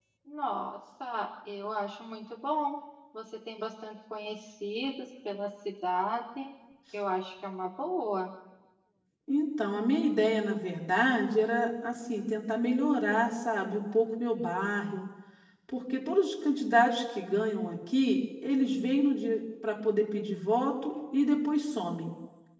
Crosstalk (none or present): none